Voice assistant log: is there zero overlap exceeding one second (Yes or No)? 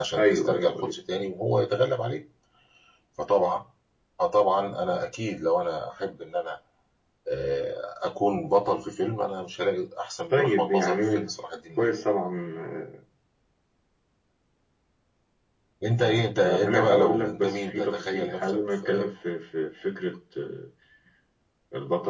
No